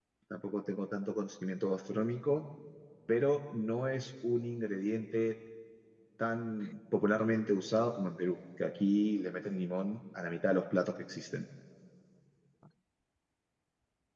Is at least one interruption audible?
No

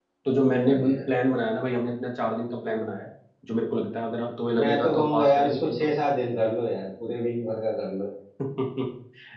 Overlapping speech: Yes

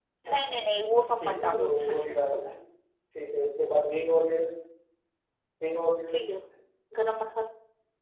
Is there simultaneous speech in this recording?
Yes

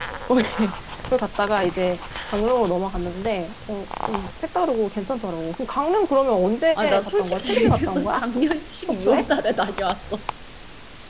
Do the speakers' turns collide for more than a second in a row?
Yes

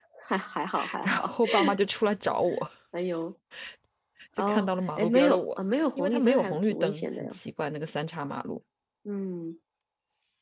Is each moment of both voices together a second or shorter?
No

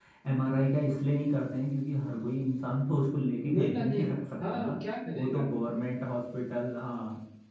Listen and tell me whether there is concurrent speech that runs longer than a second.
Yes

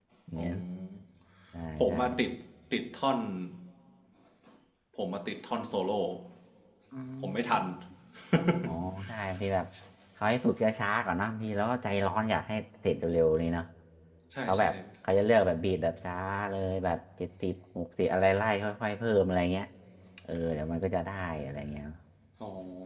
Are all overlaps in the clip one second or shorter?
Yes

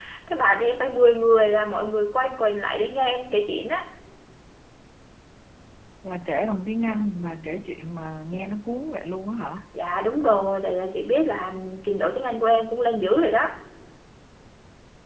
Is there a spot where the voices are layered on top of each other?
No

